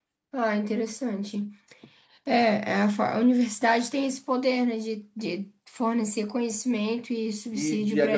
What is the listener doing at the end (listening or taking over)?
taking over